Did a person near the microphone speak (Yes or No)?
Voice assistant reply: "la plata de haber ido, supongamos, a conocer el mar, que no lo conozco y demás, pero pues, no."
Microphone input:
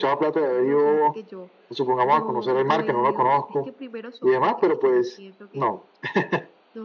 Yes